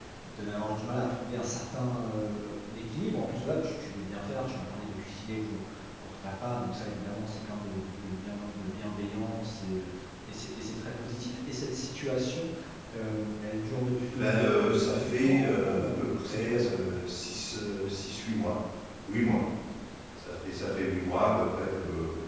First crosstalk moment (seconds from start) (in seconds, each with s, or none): 14.1 s